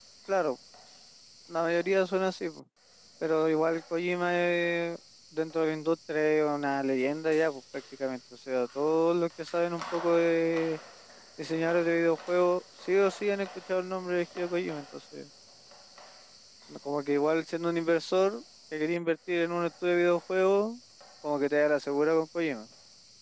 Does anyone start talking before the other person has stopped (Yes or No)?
No